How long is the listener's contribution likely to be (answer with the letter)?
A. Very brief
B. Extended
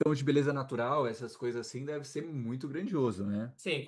B